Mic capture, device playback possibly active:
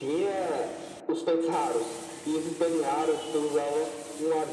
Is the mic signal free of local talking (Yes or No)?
Yes